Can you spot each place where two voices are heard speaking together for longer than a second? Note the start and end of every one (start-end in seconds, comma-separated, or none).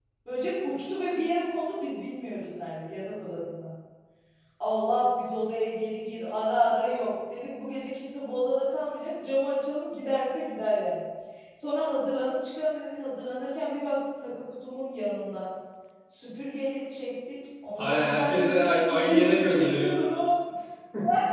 17.8-20.0